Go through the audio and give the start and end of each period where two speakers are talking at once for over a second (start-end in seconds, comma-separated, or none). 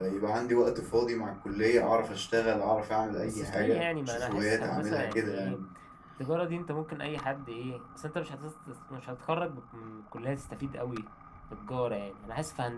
3.2-5.6